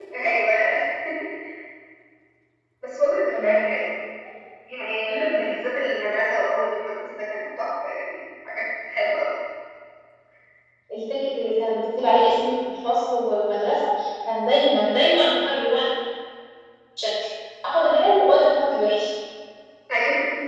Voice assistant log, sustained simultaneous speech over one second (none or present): none